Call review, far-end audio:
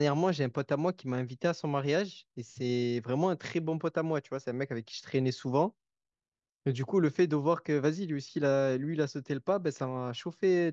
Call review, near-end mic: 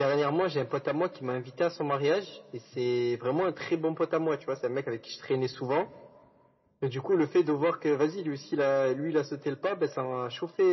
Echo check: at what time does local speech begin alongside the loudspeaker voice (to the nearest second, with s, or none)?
none